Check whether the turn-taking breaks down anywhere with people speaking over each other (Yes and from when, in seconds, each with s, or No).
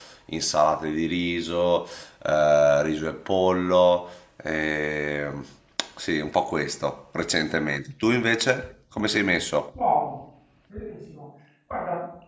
No